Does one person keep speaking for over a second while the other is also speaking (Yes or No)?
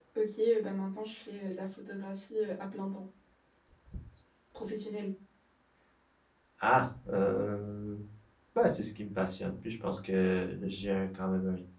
No